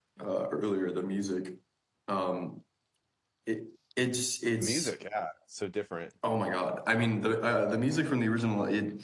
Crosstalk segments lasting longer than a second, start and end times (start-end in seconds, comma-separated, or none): none